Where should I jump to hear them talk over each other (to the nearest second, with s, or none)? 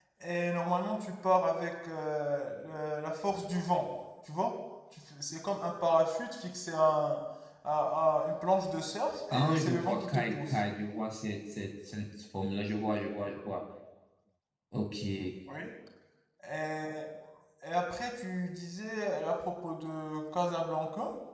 9 s